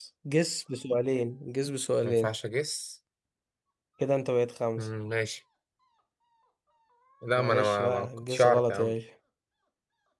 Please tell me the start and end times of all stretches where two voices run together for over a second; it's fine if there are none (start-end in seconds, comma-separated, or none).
7.3-8.9